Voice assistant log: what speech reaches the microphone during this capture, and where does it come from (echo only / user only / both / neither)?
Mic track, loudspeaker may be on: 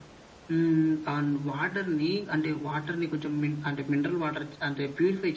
echo only